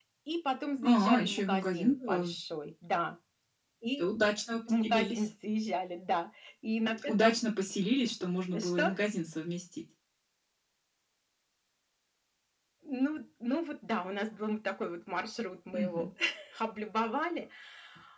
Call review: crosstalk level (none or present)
present